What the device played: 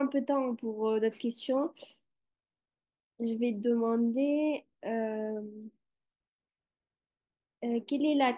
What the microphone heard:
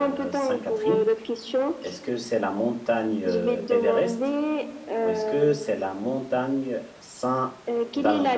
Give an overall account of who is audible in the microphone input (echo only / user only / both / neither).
both